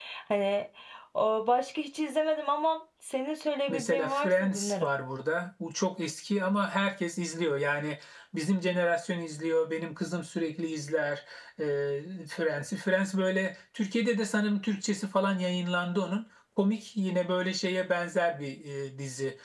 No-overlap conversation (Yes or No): No